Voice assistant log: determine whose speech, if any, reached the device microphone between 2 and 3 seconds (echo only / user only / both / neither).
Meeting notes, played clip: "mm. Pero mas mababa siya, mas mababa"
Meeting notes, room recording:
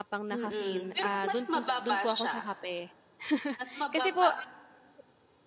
both